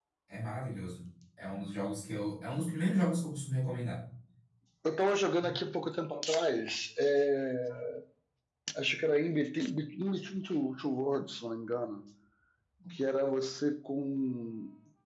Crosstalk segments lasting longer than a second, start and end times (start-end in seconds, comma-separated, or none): none